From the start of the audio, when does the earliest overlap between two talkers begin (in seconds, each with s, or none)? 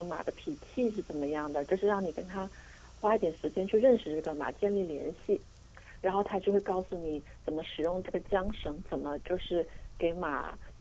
none